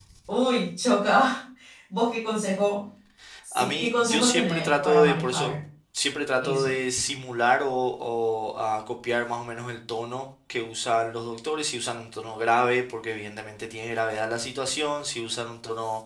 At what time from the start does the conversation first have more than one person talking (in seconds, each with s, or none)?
3.5 s